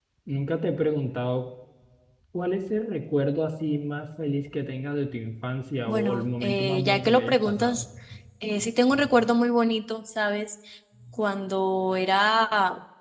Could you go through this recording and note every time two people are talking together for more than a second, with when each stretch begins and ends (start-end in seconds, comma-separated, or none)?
5.9-7.8